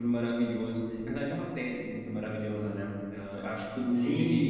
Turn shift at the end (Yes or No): Yes